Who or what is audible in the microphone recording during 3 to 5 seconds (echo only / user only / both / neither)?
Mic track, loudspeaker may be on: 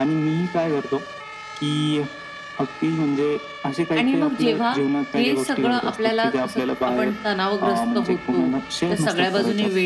both